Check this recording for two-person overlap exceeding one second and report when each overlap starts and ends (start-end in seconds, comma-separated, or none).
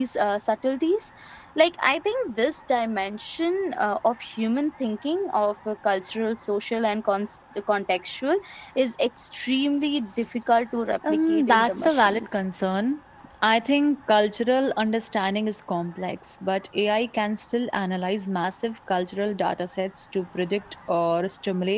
11.1-12.4